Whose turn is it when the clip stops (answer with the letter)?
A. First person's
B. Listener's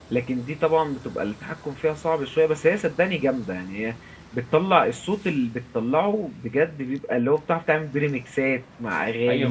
B